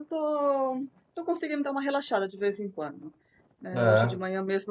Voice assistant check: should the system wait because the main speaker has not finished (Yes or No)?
Yes